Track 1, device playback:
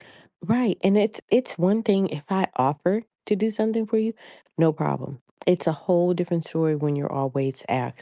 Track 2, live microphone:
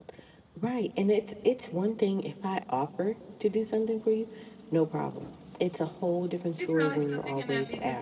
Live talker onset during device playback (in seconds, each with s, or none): 6.5 s